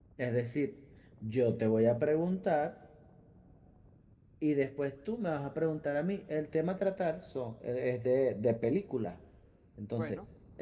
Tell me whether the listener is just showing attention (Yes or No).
Yes